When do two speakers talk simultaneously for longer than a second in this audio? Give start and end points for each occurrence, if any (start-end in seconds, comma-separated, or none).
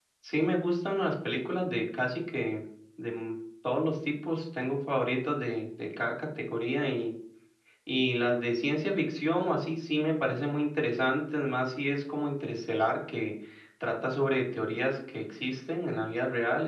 none